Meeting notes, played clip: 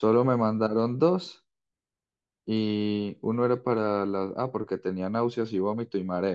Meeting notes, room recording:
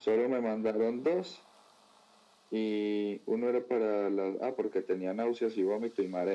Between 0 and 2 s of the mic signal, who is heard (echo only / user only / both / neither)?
echo only